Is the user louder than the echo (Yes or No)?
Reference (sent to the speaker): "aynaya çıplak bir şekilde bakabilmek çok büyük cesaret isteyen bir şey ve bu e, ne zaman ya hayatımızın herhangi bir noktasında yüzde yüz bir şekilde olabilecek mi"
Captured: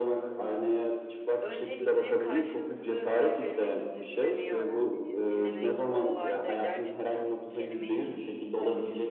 No